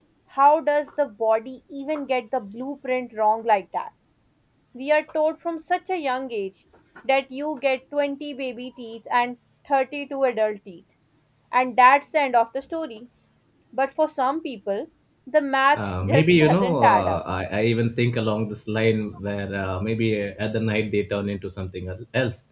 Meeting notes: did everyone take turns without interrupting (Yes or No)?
No